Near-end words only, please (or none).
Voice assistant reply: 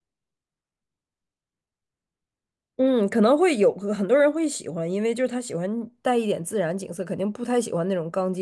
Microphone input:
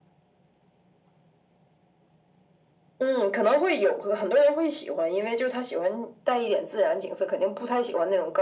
none